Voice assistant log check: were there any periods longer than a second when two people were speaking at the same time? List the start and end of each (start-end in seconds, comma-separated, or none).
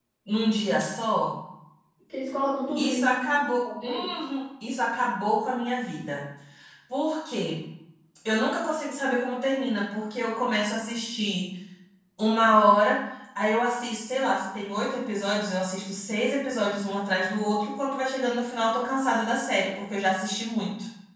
2.8-4.1